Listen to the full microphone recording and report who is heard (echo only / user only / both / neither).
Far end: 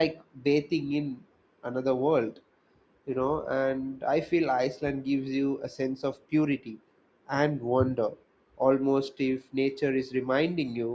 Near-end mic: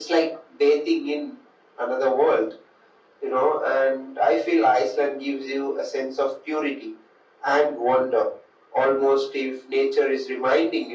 echo only